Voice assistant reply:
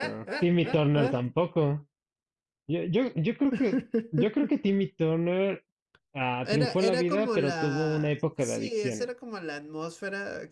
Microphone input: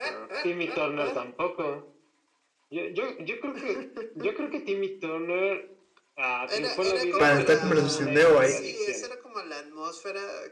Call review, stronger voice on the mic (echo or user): user